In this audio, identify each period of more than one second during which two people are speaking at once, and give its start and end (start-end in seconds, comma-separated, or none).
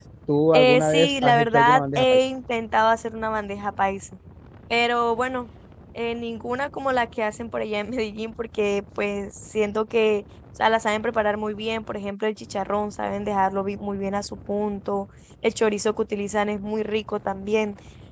0.5-2.2